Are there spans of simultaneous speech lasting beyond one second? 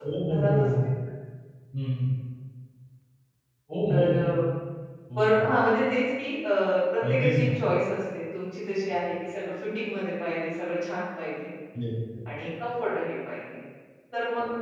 No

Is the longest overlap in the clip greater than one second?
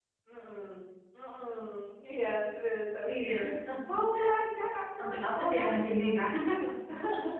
Yes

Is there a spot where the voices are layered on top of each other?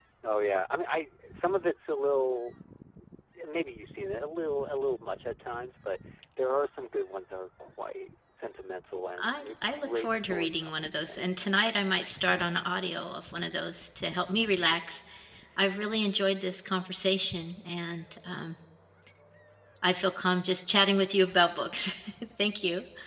Yes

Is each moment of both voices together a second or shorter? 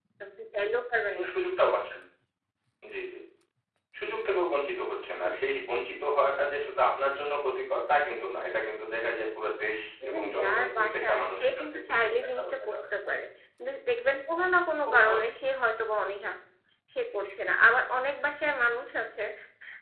No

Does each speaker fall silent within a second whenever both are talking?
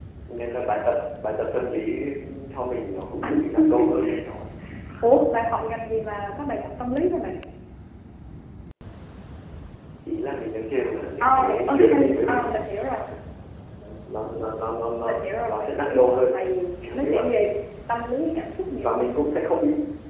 No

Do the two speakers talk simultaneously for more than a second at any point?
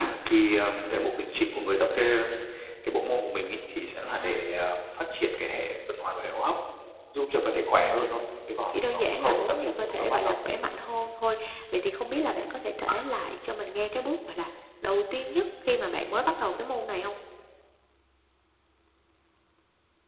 Yes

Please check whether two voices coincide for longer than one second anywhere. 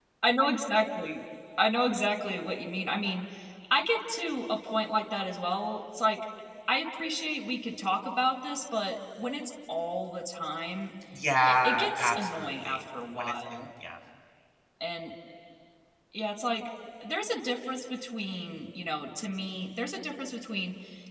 Yes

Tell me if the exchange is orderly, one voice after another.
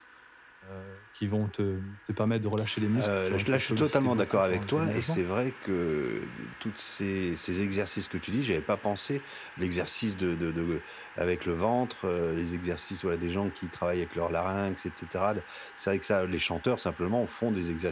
No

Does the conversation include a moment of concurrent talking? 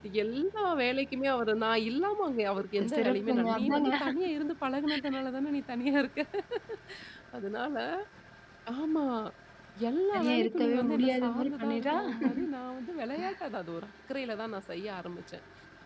Yes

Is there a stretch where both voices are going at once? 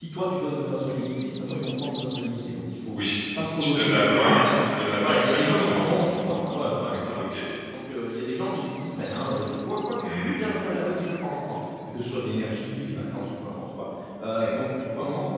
Yes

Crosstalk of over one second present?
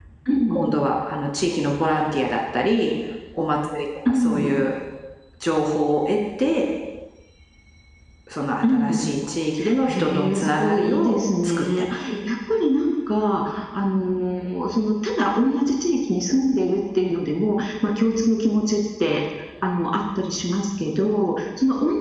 Yes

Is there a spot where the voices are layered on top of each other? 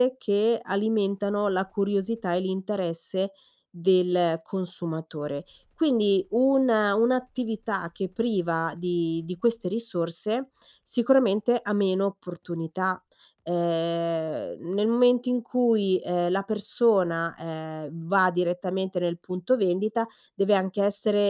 No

